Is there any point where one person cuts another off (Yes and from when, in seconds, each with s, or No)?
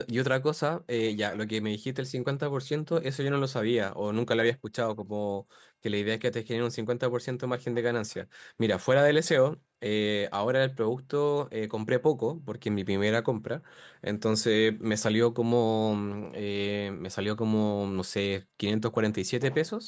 No